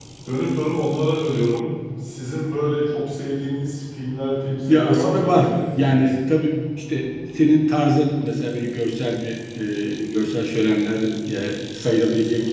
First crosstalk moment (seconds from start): 5 s

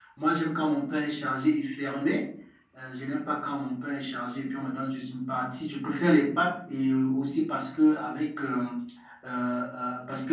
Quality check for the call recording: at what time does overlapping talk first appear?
none

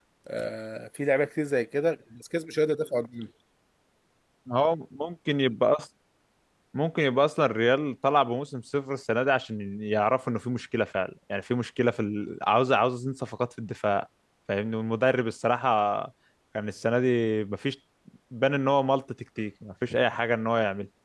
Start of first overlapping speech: none

